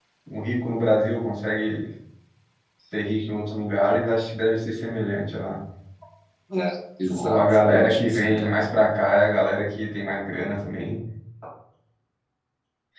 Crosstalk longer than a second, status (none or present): present